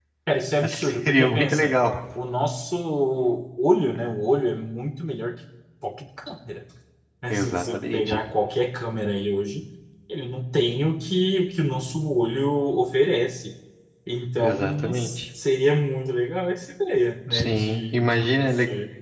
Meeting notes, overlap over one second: present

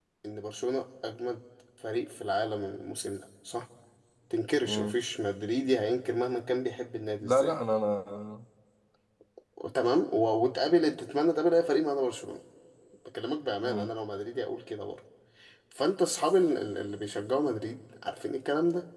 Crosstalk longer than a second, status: none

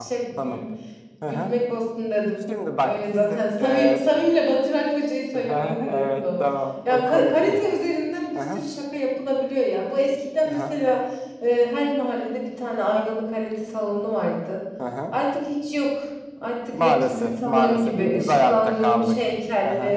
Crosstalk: present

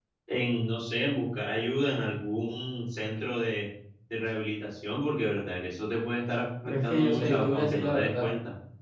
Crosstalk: present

